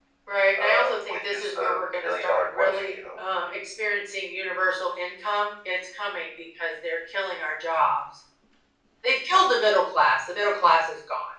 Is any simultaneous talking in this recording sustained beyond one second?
Yes, from 0.6 s

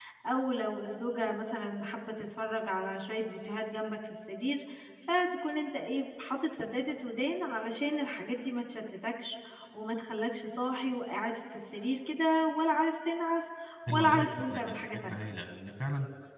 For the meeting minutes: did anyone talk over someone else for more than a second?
Yes, from 13.9 s

